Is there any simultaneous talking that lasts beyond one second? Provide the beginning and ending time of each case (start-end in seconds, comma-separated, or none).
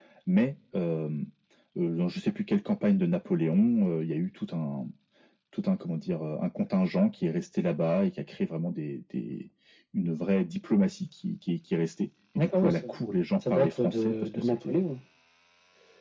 13.5-14.9